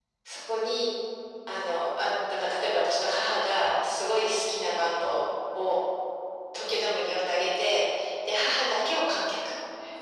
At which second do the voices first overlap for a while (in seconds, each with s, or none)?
none